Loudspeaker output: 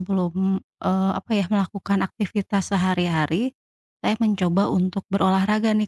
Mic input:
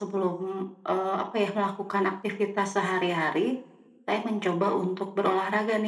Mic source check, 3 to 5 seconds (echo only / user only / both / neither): echo only